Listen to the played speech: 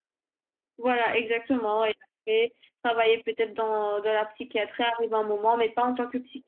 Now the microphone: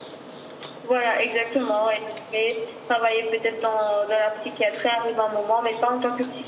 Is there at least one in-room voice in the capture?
No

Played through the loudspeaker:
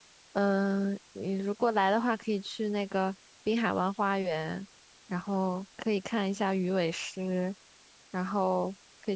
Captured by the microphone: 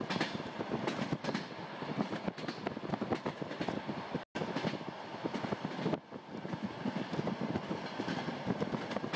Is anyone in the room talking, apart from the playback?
No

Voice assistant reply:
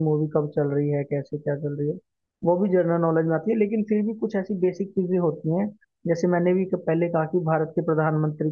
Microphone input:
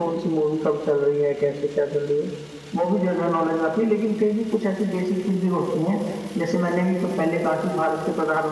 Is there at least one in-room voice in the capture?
No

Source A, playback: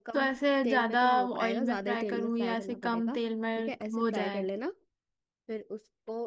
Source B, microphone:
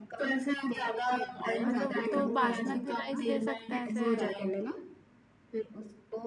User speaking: Yes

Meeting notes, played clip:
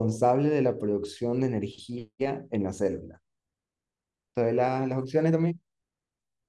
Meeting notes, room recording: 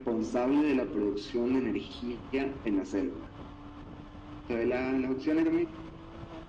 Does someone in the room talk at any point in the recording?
No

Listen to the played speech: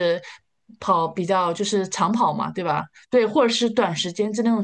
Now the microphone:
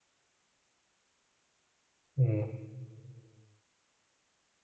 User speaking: Yes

